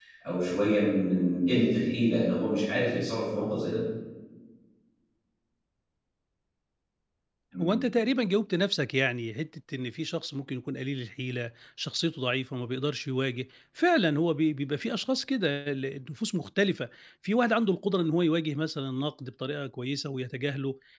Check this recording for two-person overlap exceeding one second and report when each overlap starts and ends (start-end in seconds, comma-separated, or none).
none